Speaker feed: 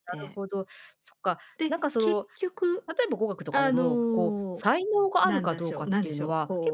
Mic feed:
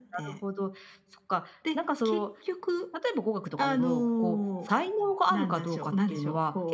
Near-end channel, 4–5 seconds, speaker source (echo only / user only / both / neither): echo only